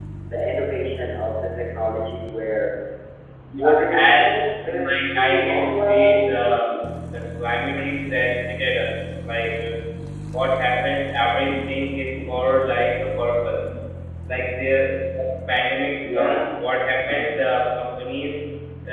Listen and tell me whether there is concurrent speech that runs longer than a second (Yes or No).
Yes